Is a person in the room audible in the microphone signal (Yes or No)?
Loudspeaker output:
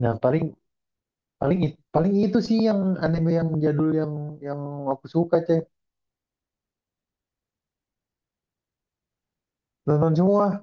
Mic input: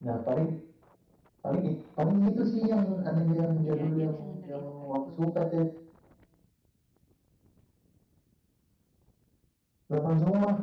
Yes